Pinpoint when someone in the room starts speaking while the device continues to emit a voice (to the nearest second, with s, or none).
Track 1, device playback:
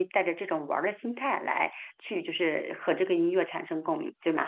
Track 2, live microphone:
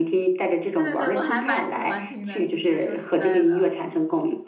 1 s